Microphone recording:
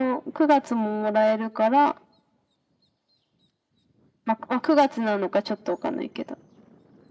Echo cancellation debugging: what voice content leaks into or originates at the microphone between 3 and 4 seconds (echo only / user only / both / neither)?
neither